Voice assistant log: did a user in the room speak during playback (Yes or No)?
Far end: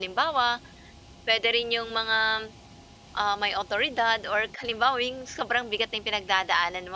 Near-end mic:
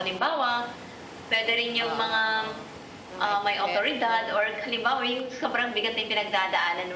Yes